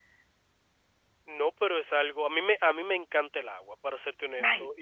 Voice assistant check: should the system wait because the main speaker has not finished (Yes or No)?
Yes